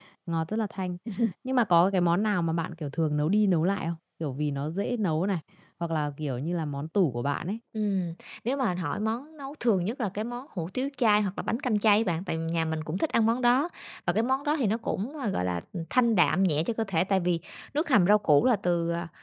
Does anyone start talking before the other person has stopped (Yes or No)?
No